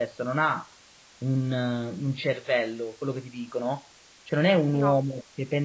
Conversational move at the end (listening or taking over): listening